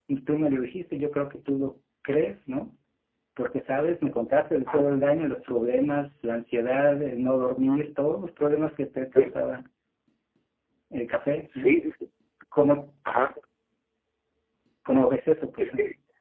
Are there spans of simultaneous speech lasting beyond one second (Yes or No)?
No